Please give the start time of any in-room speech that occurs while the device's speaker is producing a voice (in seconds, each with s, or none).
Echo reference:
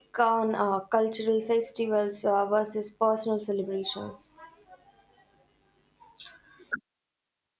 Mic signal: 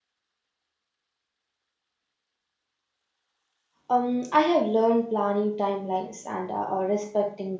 3.9 s